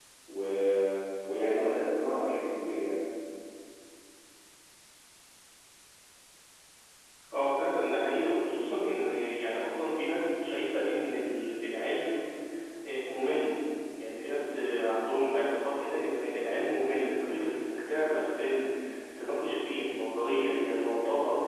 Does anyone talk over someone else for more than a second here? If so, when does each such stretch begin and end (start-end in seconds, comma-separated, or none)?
none